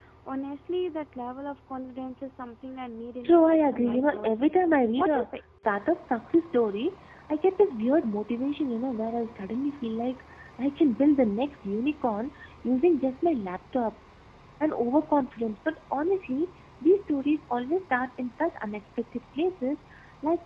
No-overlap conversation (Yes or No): No